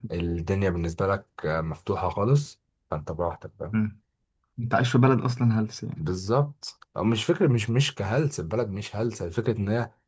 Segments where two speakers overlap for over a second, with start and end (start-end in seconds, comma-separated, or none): none